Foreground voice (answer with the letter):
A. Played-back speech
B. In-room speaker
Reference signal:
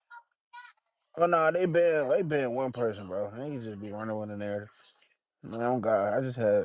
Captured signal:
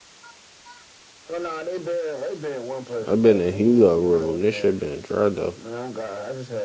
B